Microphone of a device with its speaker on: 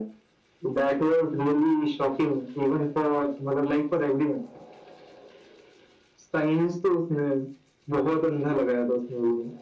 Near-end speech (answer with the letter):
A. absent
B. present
A